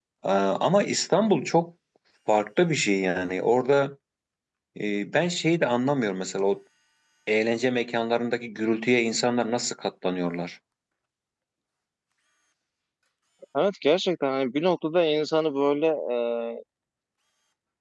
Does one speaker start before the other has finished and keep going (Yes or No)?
No